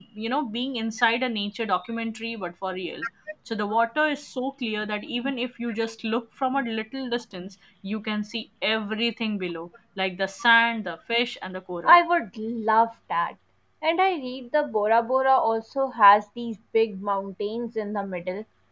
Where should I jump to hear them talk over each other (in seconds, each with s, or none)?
none